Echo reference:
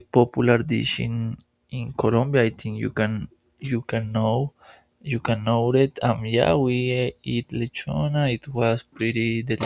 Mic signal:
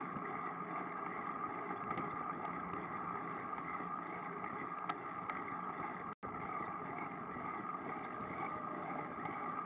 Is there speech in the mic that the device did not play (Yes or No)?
No